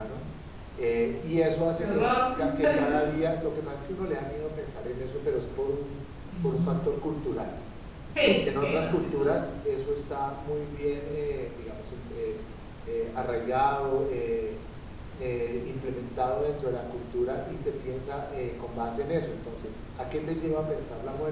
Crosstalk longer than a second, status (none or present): present